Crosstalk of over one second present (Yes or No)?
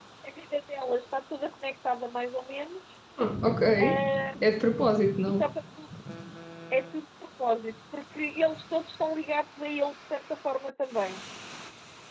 No